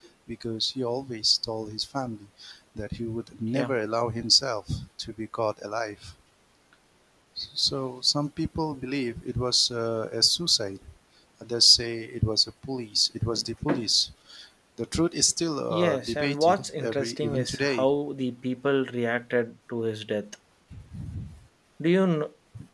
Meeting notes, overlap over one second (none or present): present